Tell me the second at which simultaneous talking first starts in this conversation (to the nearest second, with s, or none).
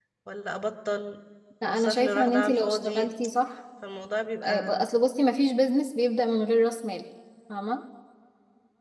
2 s